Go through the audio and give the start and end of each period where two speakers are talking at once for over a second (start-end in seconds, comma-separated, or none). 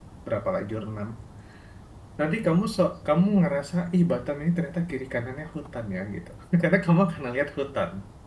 none